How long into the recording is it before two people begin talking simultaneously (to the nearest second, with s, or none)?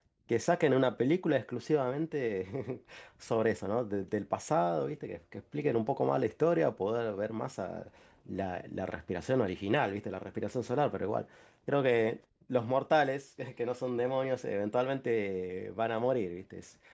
none